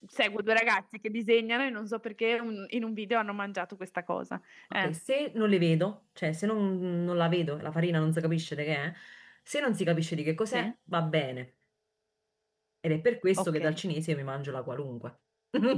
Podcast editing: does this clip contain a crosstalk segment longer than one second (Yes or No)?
No